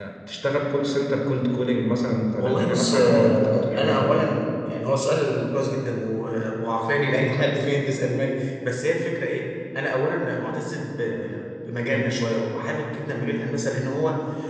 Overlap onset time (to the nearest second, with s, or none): 2 s